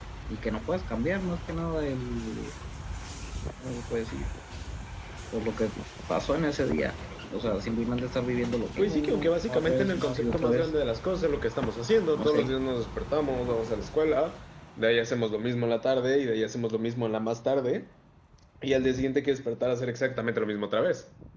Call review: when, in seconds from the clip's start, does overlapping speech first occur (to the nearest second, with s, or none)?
9 s